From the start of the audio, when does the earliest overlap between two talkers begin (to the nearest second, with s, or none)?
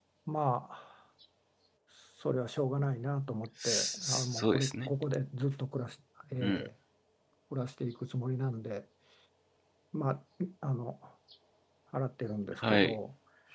4 s